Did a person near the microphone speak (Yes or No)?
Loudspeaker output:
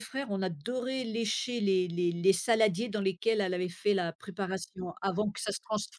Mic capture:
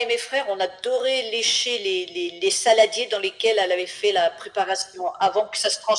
No